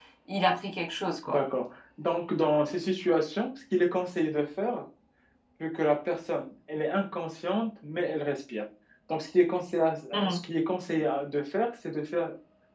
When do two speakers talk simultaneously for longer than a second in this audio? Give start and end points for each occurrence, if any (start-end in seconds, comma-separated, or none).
none